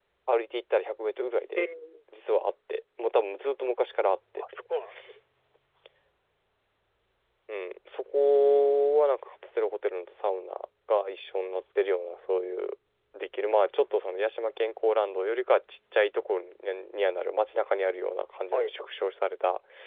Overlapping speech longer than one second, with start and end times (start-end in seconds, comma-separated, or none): none